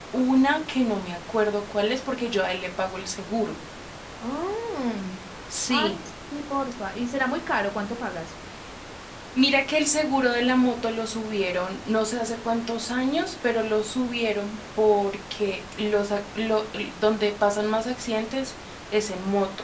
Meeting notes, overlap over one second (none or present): none